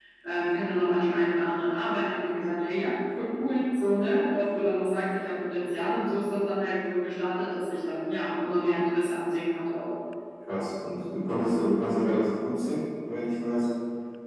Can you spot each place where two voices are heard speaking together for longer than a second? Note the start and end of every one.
none

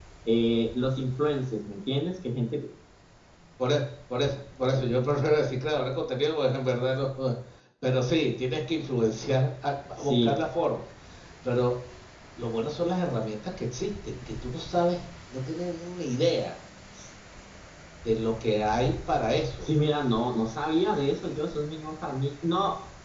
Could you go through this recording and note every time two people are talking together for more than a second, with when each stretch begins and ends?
none

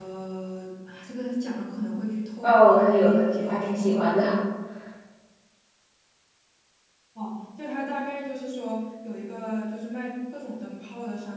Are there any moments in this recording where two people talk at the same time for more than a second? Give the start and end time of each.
2.4-4.1

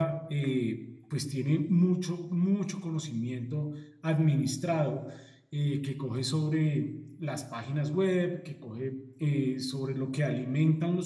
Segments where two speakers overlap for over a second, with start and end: none

